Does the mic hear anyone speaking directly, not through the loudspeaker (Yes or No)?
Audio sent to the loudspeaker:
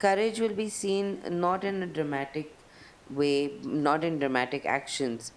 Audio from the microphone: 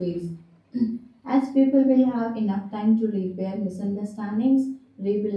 Yes